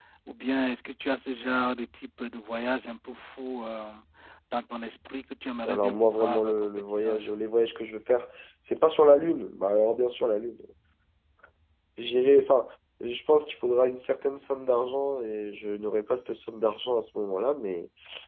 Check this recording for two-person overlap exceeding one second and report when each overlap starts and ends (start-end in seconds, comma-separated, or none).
5.7-7.3